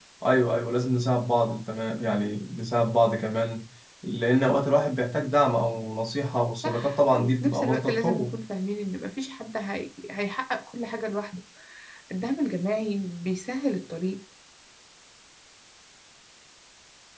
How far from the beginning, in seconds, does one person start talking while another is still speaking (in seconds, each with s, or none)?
6.6 s